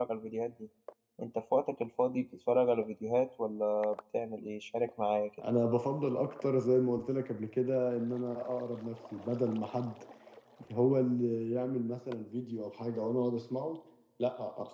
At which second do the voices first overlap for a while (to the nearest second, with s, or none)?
none